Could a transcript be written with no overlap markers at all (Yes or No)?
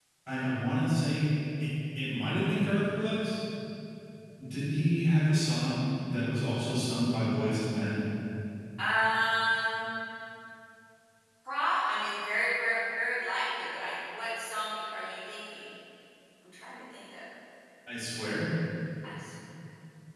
Yes